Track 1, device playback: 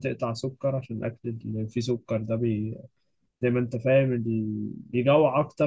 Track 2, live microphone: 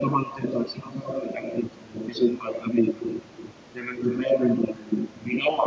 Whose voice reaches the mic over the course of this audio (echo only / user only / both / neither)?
echo only